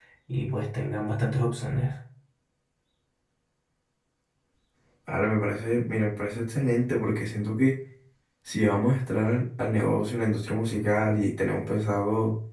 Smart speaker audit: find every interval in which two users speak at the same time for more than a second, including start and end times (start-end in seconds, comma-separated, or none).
none